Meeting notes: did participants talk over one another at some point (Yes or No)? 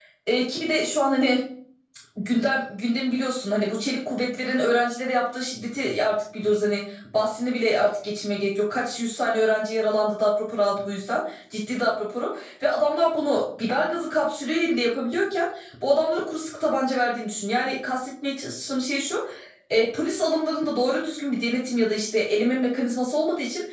No